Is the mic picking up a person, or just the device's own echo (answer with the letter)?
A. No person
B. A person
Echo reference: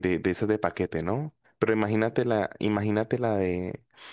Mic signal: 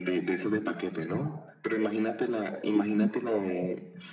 A